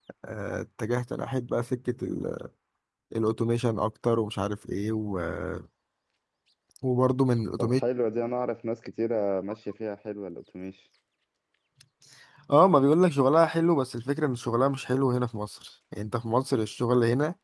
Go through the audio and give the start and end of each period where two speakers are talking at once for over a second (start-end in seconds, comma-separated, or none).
none